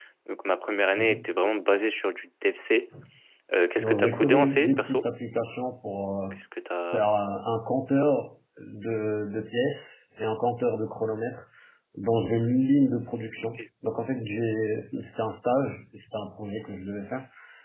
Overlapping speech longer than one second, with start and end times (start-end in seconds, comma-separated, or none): 3.8-5.1